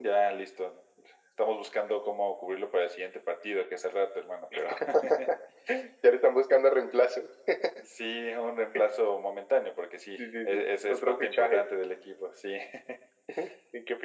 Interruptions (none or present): present